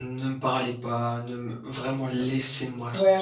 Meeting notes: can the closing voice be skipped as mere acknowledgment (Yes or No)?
No